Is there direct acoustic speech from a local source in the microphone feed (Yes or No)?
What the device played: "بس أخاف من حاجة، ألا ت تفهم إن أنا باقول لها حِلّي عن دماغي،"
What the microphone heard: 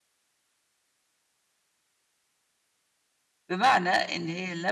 Yes